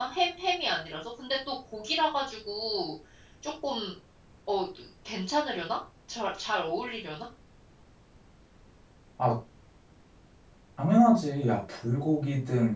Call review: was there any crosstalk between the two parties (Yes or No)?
No